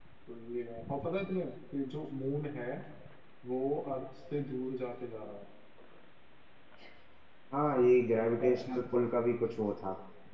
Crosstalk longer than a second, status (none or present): none